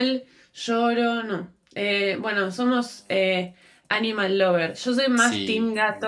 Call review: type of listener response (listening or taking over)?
listening